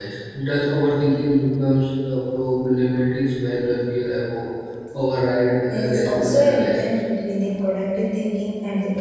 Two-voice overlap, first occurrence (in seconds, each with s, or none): 5.7 s